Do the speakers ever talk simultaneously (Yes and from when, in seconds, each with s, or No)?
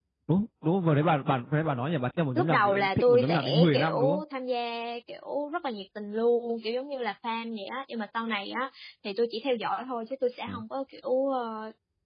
Yes, from 2.4 s